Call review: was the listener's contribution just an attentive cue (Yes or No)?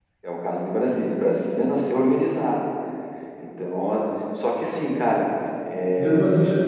No